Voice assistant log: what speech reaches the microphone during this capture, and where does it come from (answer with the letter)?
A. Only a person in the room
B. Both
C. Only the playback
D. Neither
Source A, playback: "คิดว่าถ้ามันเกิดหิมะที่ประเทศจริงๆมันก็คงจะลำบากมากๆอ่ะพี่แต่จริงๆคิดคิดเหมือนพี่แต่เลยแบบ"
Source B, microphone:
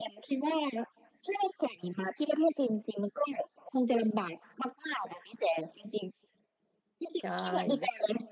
B